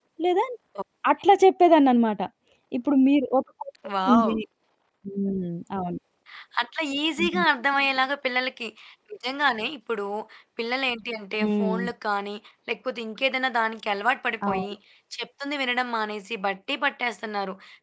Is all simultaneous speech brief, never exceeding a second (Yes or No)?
Yes